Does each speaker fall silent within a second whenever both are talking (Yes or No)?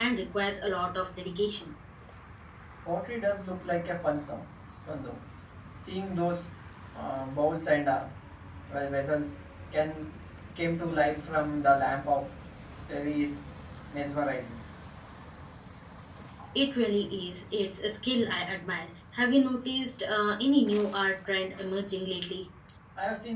Yes